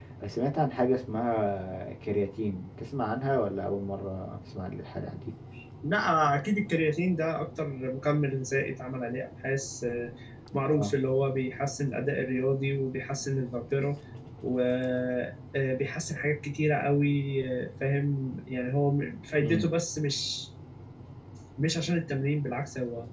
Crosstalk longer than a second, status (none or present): none